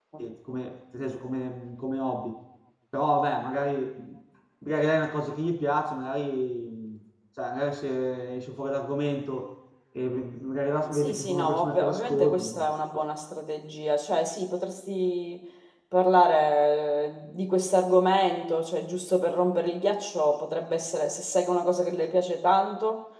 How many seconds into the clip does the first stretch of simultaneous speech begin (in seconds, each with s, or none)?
10.9 s